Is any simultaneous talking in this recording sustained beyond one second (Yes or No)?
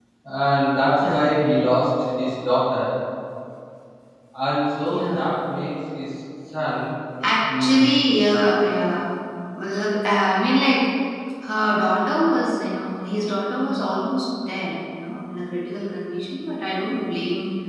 No